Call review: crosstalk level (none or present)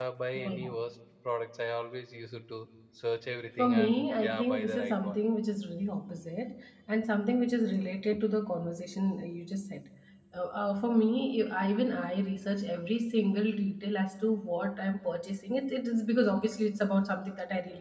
present